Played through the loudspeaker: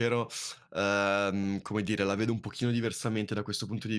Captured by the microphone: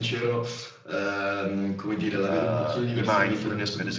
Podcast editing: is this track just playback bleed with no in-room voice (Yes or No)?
No